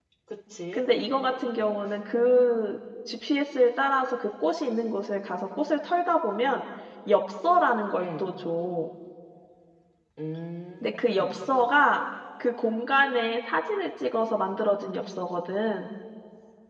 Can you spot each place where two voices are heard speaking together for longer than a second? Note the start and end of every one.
none

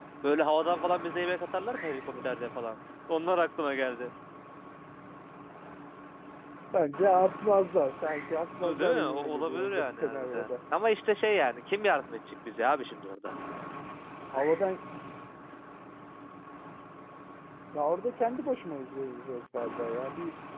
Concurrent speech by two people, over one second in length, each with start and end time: 8.6-10.5

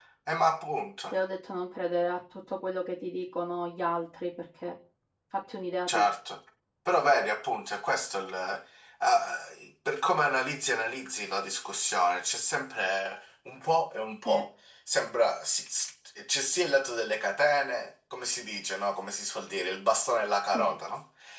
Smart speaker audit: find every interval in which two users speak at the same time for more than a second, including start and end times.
none

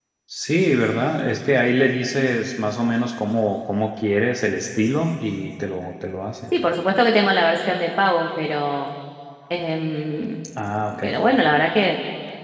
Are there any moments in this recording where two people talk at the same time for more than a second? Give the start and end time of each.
none

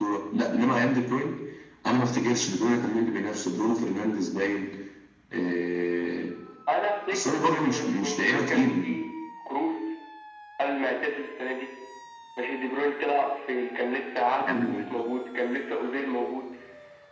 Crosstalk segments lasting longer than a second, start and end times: 7.1-8.8

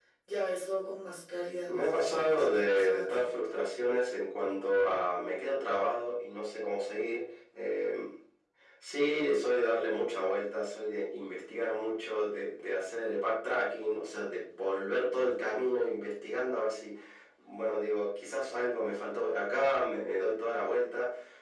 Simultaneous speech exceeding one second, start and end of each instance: 1.6-3.3

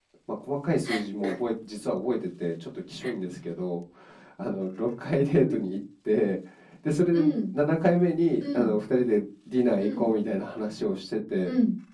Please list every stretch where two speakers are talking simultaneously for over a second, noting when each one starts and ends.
none

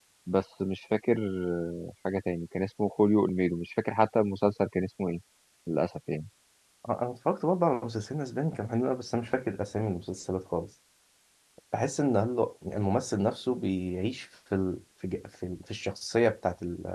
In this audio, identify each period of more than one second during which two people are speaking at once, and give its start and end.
none

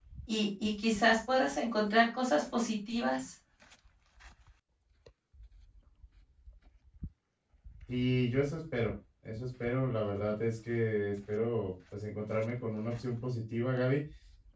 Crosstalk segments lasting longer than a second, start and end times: none

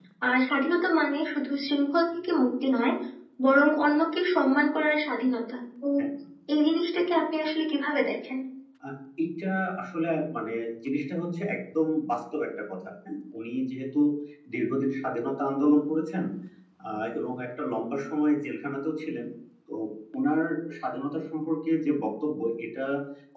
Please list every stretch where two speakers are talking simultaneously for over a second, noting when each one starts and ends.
none

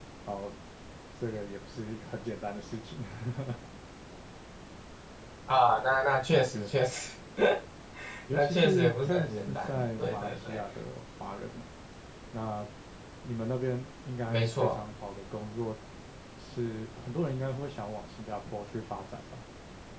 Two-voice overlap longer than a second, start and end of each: 8.3-10.6

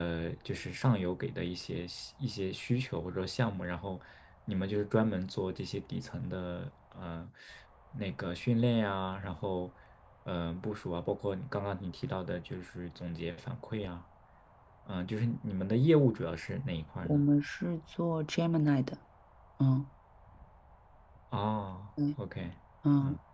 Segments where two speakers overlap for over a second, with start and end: none

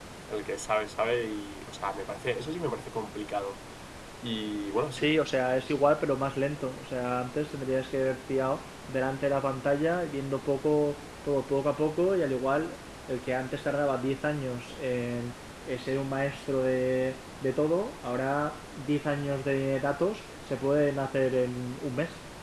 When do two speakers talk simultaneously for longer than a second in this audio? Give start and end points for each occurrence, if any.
none

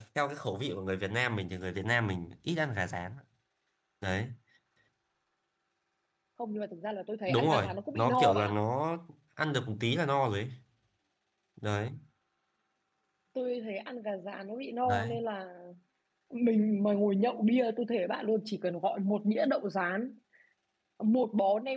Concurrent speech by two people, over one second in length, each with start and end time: 7.3-8.5

